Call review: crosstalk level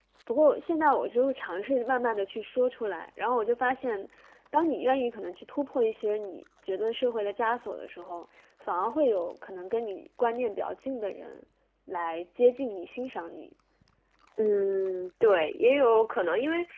none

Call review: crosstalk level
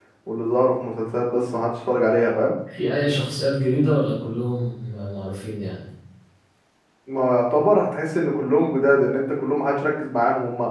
none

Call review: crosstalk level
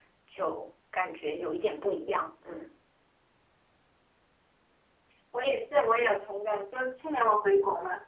none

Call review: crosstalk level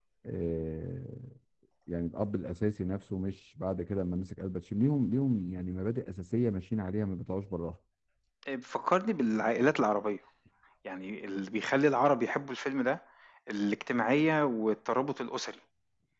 none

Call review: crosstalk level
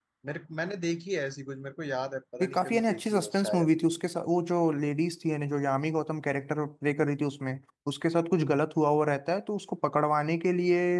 present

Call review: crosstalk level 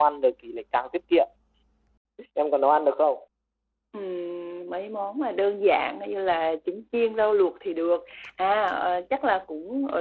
none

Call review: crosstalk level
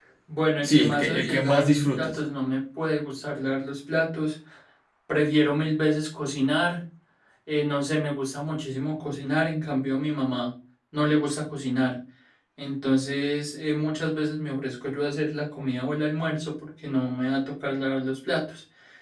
present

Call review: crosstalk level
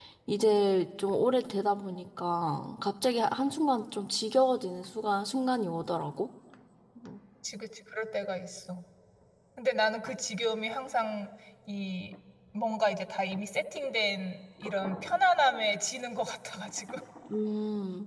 none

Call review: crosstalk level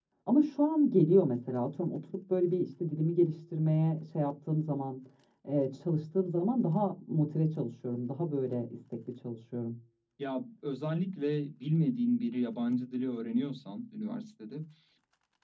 none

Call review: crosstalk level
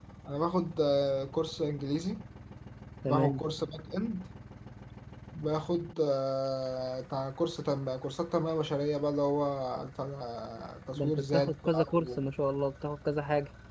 present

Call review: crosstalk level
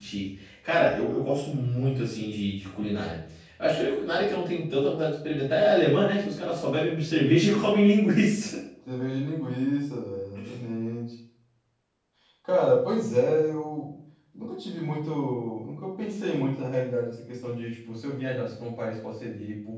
none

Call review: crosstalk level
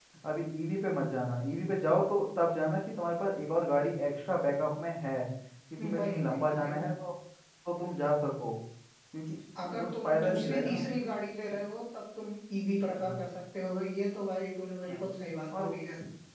present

